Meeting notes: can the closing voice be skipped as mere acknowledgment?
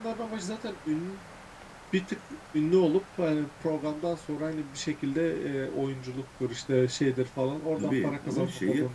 No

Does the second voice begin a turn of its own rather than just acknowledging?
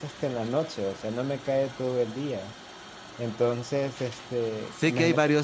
Yes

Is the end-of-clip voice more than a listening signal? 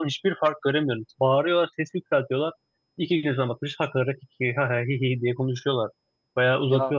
No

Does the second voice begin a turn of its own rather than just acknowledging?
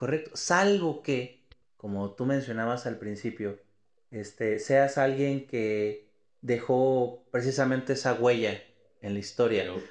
Yes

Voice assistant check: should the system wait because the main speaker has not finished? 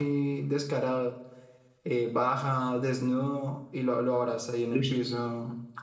Yes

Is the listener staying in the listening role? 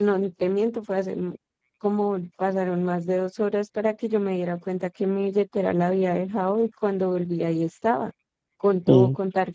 Yes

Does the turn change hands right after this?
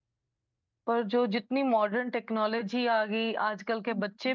No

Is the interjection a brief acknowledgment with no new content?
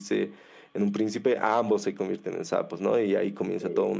Yes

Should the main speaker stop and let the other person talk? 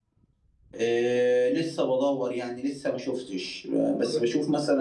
No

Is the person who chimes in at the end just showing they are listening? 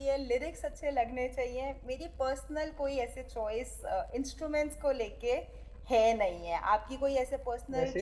No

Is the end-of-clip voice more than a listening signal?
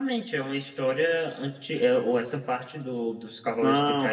Yes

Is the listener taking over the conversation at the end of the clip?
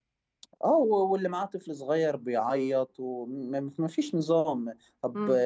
No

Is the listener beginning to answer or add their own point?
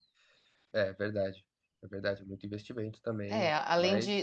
Yes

